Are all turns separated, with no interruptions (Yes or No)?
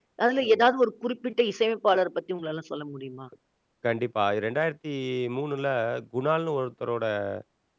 Yes